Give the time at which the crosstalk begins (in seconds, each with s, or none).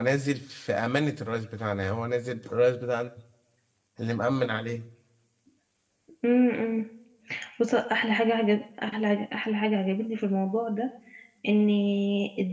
none